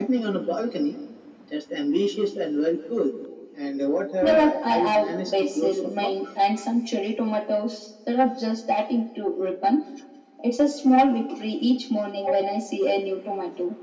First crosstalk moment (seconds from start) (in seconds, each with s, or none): 4.2 s